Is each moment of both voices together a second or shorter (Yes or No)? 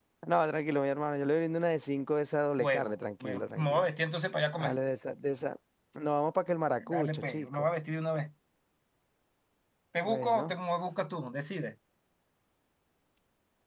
No